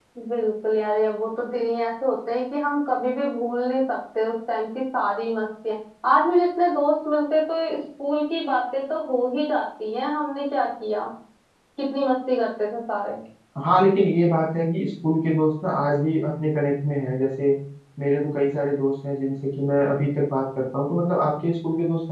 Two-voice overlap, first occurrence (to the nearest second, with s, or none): none